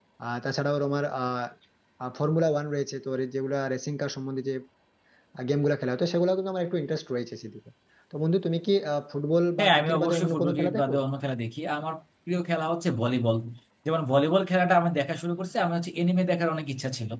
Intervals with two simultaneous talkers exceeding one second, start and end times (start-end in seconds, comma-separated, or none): 9.6-10.9